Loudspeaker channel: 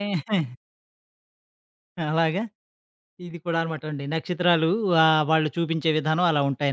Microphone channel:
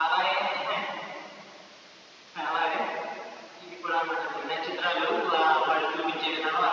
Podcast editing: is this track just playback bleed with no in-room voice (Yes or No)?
Yes